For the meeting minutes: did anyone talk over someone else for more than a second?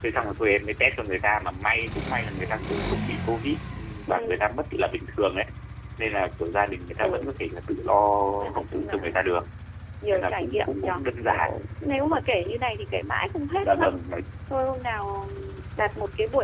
Yes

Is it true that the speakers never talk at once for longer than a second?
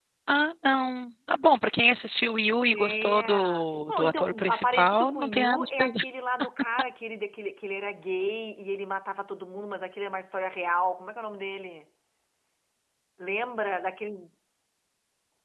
No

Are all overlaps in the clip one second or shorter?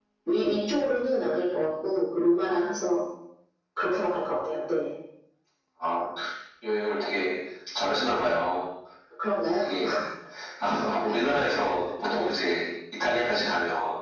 Yes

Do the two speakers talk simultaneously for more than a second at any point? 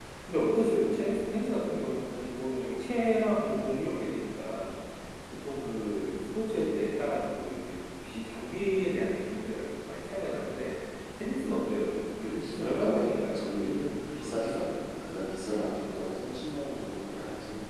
Yes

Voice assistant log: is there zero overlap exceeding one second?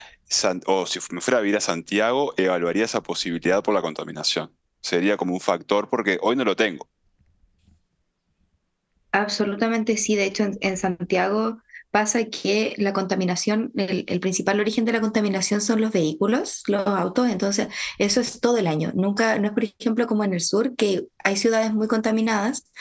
Yes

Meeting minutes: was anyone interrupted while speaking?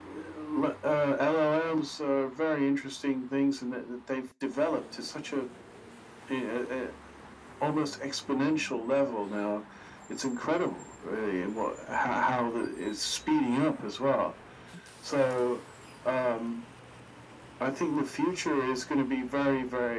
No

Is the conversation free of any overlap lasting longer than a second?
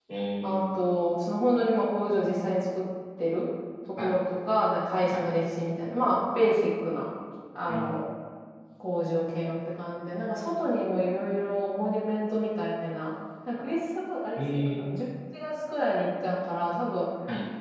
Yes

